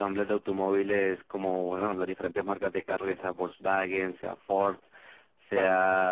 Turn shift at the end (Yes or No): No